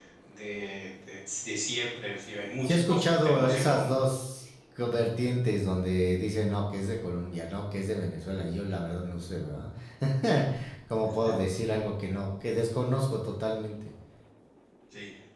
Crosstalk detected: Yes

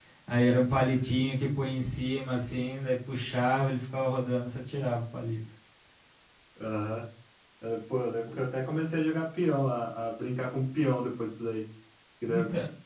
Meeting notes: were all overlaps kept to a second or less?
Yes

